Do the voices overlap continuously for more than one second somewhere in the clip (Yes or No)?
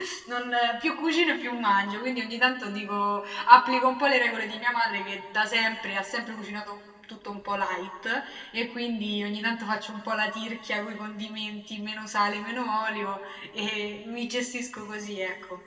No